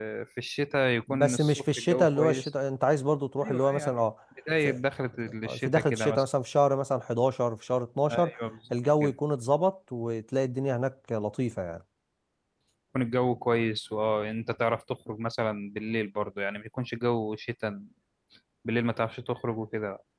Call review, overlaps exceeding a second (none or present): present